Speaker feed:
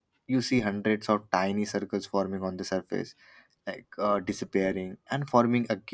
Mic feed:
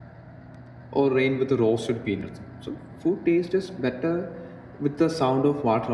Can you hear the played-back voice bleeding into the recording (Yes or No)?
No